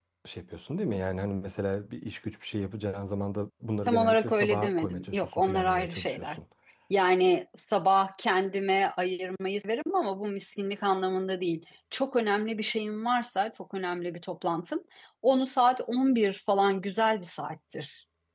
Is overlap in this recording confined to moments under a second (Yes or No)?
No